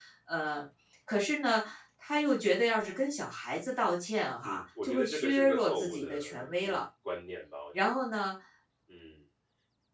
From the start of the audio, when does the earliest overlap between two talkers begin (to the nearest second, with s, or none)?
4 s